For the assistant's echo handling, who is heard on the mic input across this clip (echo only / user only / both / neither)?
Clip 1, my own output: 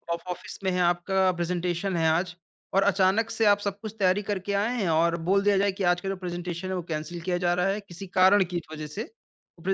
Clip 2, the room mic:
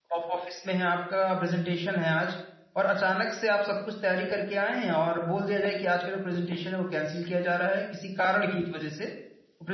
echo only